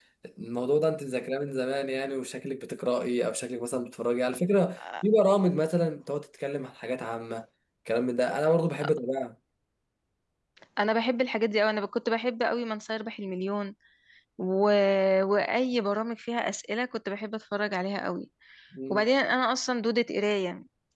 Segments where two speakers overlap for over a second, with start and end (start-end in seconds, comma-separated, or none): none